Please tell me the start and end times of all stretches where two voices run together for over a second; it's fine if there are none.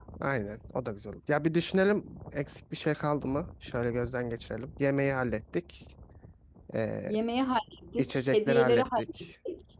8.0-9.3

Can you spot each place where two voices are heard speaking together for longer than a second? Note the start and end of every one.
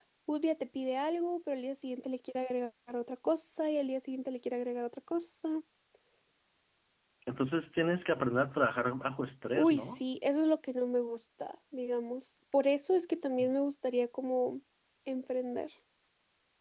none

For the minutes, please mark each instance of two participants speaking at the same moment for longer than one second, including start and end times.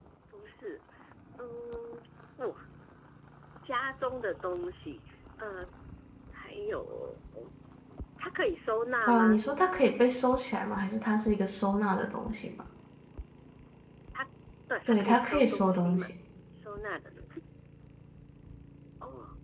14.9-16.1

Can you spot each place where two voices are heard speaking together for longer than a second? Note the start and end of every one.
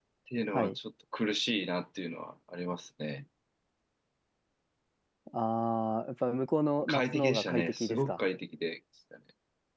6.8-8.2

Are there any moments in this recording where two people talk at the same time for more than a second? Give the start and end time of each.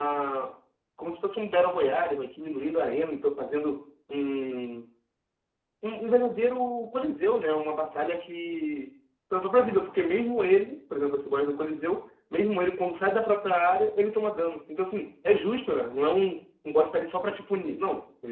none

